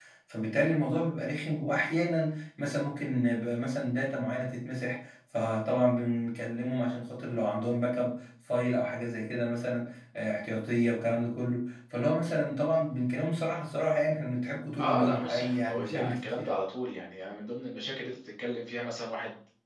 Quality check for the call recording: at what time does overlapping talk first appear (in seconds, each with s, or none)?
14.8 s